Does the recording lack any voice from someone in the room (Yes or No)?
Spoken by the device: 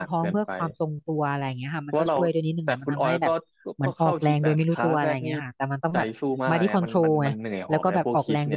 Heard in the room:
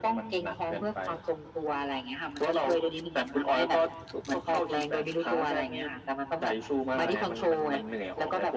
Yes